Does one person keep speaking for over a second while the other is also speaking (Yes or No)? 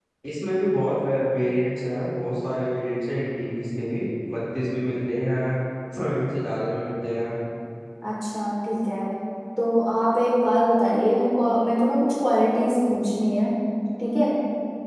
No